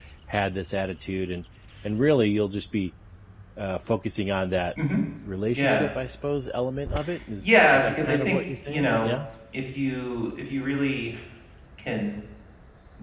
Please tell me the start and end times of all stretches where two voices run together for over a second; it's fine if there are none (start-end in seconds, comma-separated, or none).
7.4-9.1